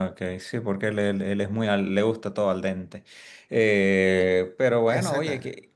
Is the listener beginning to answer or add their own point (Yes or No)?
No